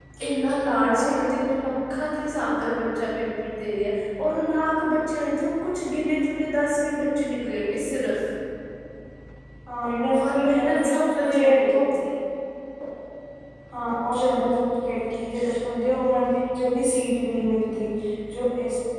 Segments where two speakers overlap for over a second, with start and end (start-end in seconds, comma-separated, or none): 10.2-11.8